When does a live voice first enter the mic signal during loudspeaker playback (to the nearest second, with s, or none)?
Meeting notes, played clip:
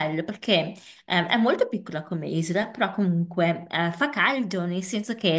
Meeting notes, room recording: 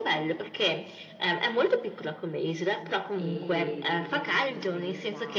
3 s